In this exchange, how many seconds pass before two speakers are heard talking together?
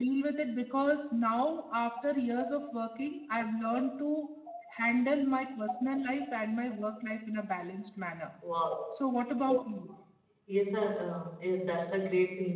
none

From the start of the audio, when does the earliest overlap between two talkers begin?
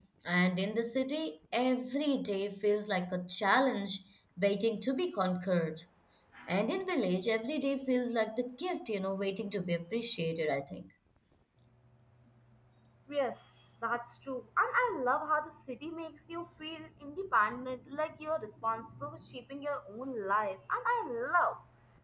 none

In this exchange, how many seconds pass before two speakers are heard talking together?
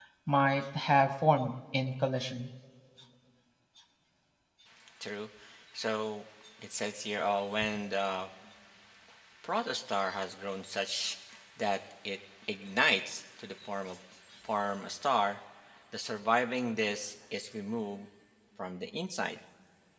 none

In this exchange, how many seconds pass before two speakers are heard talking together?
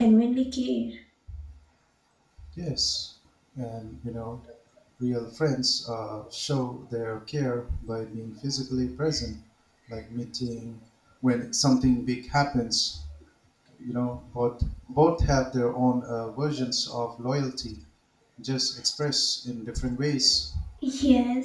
none

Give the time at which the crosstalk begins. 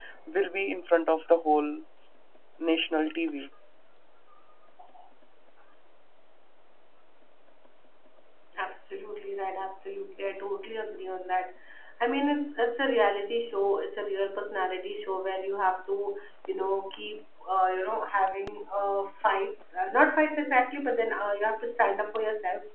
none

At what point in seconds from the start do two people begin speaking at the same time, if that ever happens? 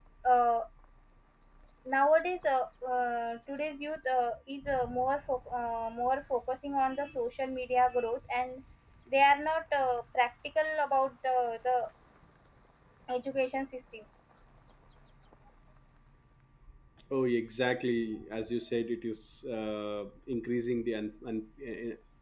none

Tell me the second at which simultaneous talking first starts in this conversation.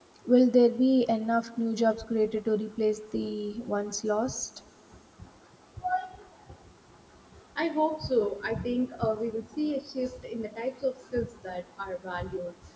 none

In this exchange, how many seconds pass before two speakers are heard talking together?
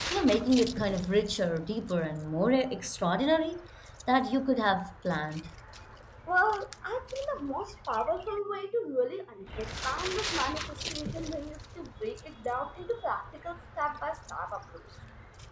none

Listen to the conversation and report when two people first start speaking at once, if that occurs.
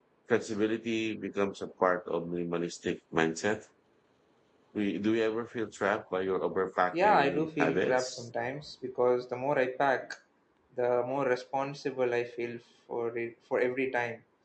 7 s

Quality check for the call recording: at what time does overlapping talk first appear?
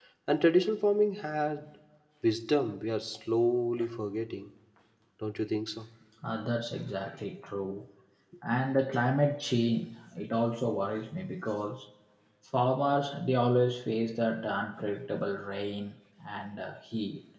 none

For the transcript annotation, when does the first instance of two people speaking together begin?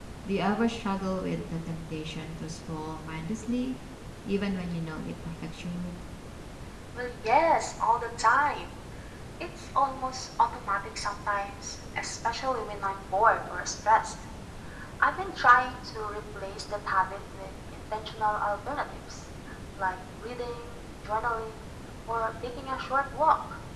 none

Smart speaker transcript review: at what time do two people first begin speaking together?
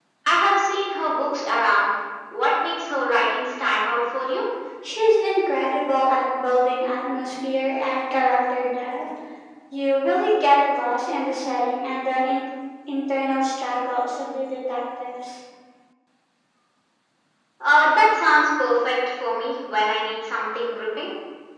none

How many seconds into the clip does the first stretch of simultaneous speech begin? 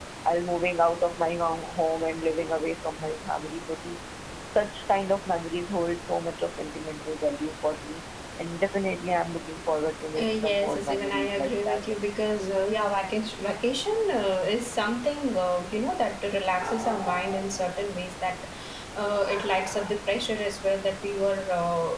10 s

